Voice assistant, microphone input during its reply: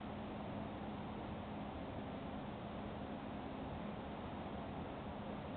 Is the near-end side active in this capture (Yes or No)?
No